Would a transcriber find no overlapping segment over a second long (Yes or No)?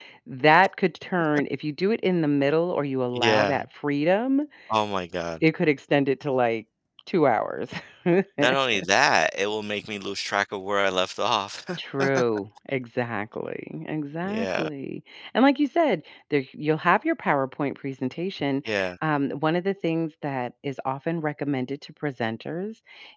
Yes